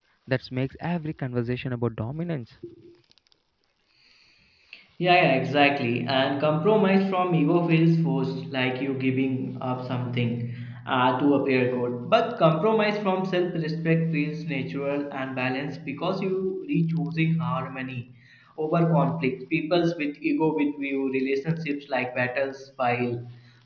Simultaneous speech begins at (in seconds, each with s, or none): none